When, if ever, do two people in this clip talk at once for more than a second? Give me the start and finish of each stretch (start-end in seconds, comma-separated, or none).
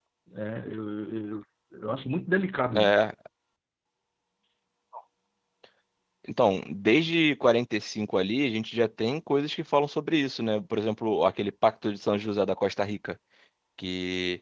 none